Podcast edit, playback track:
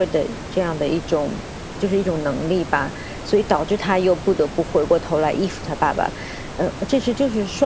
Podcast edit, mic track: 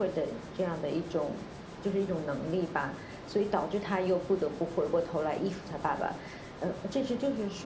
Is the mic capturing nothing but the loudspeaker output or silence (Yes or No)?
Yes